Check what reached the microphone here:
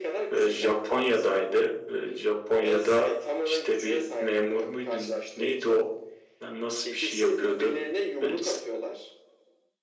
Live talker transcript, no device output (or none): e, Japonya'daydı. E, Japonya'da işte bir memur muydun? Neydi o? Lan Nasıl bir şey yapıyordu? Böyle, s-